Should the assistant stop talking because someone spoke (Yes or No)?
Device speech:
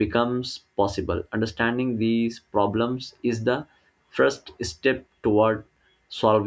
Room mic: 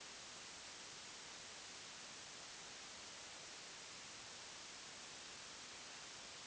No